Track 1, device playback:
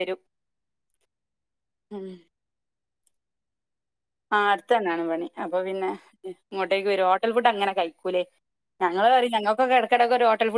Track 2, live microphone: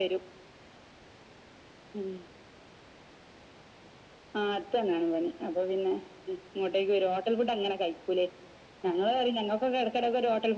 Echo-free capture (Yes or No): No